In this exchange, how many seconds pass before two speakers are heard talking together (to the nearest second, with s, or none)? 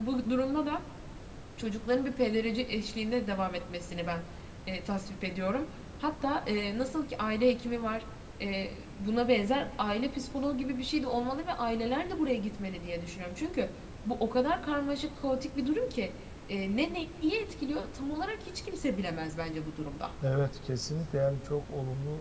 none